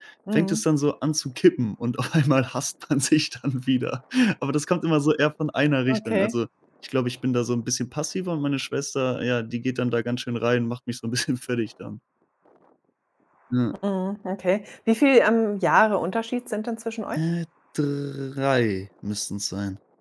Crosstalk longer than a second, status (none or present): none